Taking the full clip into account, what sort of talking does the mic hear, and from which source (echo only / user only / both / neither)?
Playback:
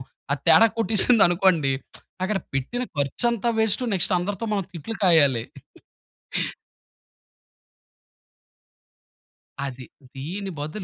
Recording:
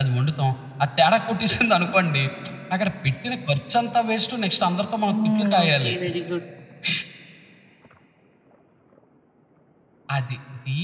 both